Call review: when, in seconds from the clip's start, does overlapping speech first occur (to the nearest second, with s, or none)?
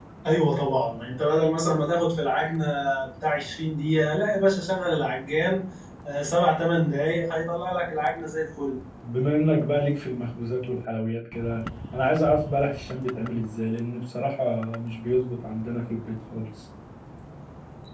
none